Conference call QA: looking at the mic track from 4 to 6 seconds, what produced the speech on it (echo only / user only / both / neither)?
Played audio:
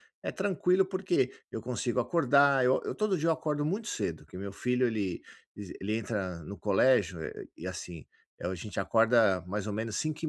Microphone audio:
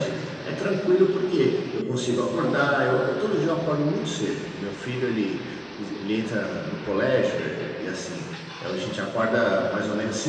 echo only